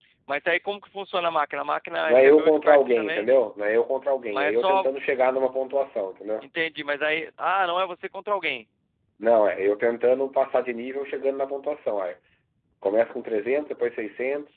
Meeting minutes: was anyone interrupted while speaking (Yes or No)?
Yes